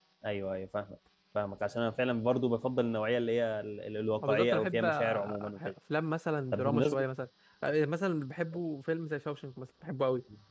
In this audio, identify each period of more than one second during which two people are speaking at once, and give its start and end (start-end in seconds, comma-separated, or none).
4.2-5.6